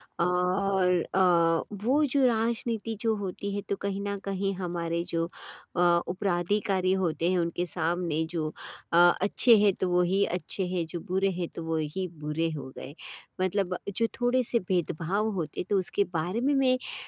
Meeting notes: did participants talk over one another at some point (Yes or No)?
No